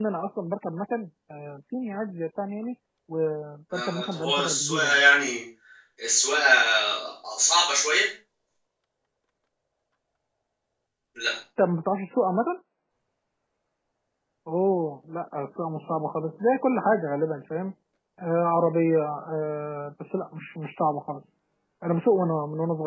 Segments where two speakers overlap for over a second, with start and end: 3.7-5.0

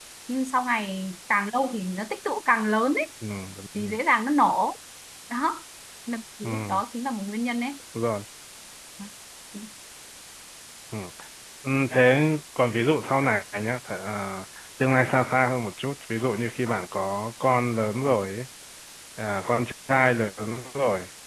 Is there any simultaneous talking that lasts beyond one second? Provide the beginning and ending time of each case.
none

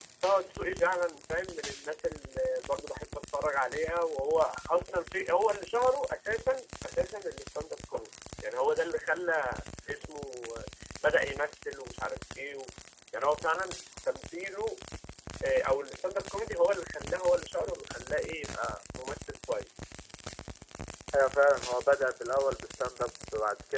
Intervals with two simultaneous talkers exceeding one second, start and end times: none

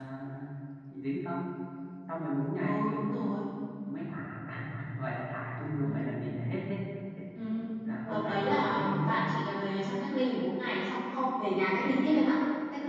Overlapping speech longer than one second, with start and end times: 8.1-9.3

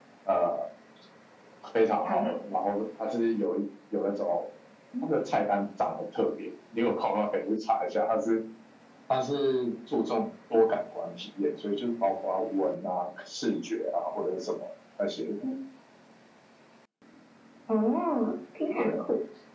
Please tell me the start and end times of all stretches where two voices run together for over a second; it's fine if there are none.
none

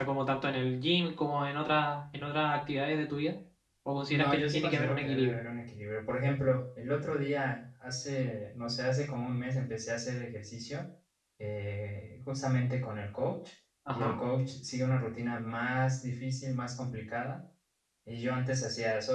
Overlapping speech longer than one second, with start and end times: 4.1-5.4

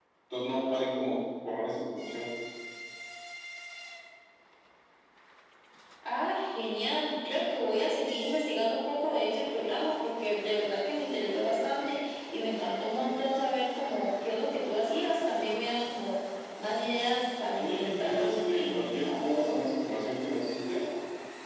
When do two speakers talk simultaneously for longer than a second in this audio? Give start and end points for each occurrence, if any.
17.6-19.5

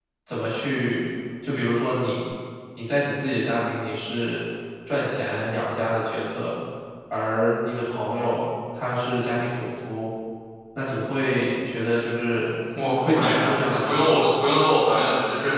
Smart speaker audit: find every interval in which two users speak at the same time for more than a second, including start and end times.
13.0-14.3

